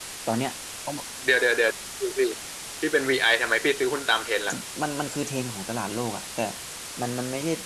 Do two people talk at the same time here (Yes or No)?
No